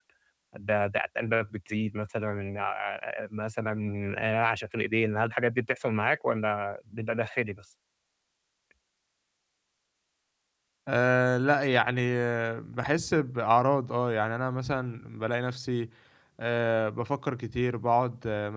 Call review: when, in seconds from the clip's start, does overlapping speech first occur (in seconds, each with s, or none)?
none